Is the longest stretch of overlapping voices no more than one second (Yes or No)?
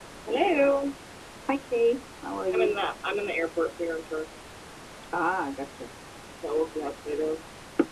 Yes